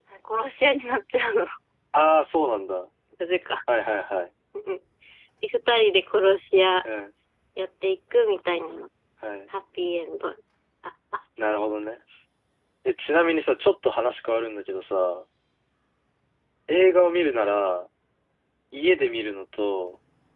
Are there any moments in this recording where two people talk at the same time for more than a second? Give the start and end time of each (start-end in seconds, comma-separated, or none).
none